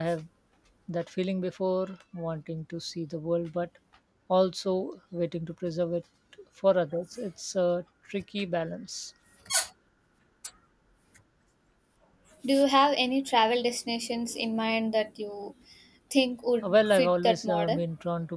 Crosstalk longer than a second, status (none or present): present